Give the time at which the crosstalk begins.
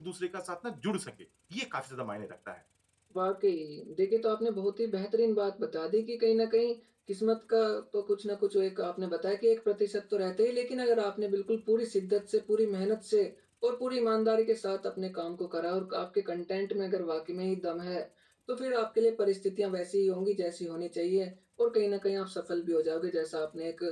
none

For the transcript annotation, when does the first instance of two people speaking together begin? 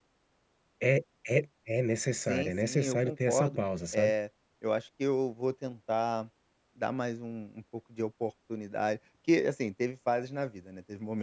2.2 s

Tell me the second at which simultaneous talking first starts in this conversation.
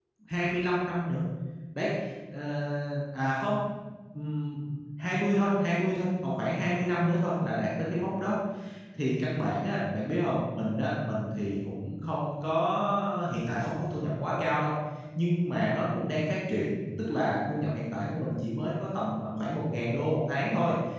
none

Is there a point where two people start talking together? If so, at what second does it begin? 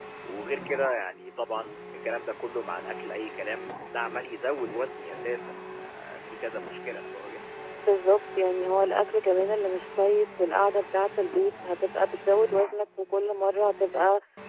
none

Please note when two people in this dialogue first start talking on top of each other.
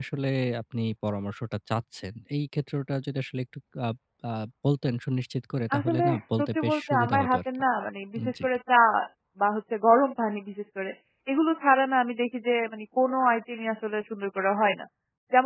5.8 s

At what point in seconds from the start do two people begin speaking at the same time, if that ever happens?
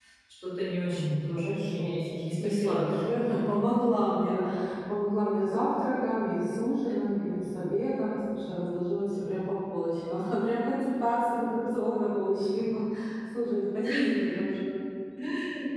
0.8 s

